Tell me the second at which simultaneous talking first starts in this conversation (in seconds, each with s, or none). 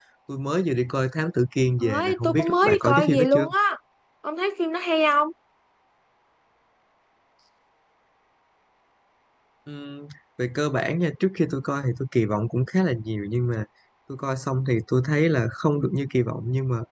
1.8 s